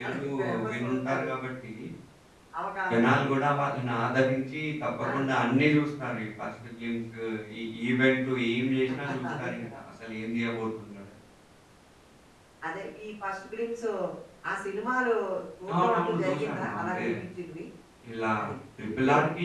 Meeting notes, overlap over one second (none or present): present